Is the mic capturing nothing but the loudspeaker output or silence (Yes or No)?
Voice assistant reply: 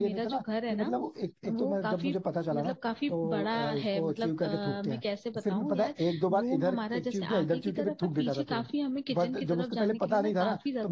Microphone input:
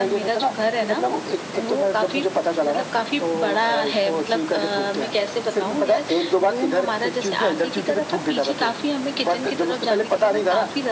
Yes